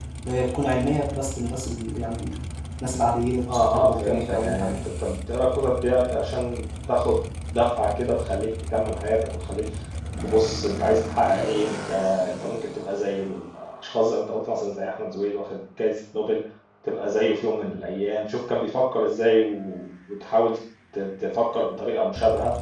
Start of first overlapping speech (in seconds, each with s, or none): 3.5 s